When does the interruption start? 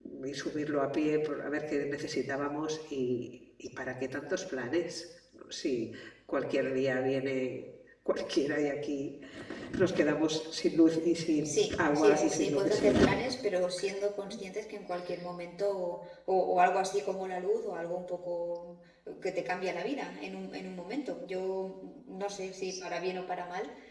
11.4 s

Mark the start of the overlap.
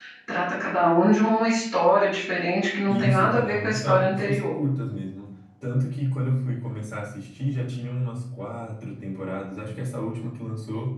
2.9 s

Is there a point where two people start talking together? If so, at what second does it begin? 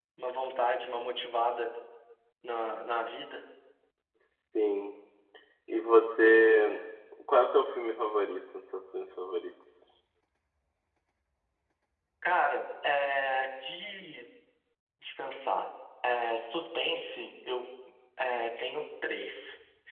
none

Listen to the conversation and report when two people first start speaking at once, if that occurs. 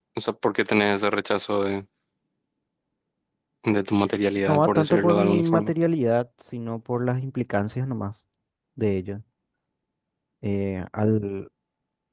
4.5 s

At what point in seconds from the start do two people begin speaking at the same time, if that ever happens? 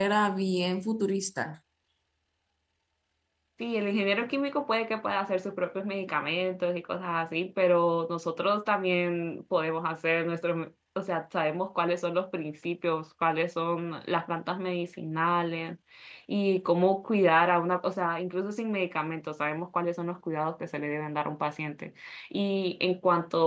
none

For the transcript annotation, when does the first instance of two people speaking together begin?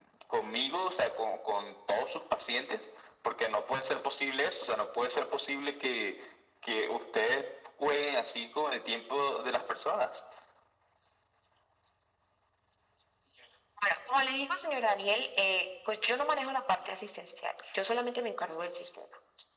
none

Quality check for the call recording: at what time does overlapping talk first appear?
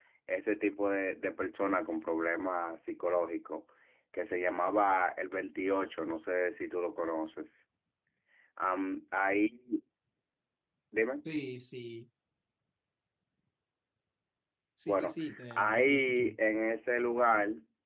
14.8 s

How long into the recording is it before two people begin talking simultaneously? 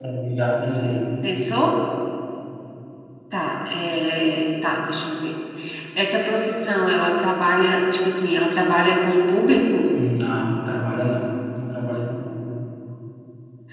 none

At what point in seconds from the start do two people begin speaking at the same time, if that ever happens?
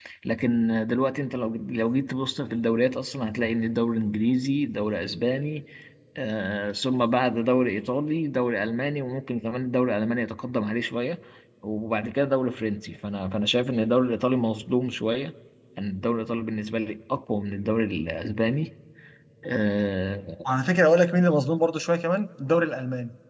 none

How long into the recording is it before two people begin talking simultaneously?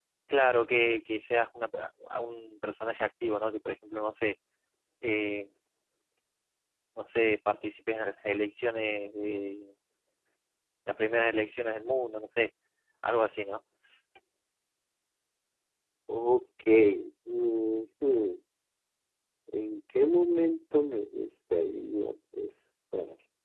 none

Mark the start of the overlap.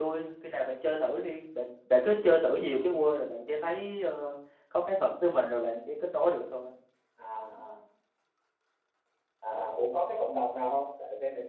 none

